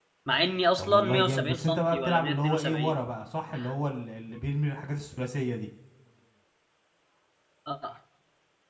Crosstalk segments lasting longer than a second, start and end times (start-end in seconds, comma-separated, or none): 0.8-3.0